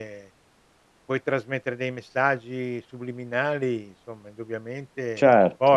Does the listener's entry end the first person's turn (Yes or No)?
Yes